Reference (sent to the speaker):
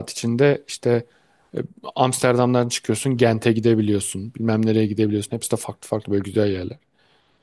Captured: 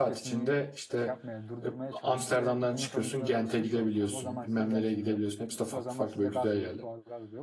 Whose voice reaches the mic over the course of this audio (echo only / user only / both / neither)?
both